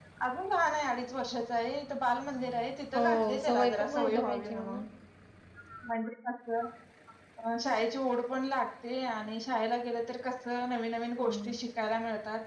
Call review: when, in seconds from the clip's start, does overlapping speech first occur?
3.0 s

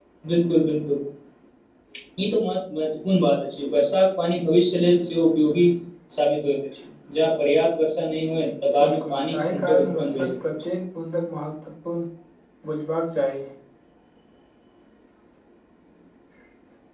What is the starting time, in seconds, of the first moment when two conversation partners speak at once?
8.8 s

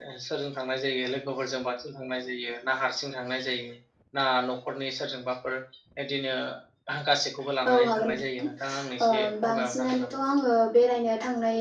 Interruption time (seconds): 7.7 s

